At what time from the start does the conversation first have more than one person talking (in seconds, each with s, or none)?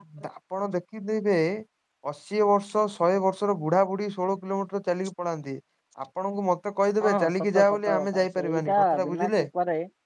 7.0 s